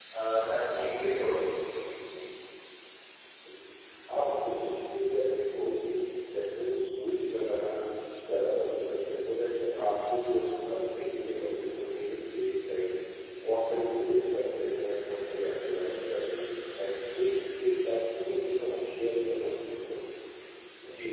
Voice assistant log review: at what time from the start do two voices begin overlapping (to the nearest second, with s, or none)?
none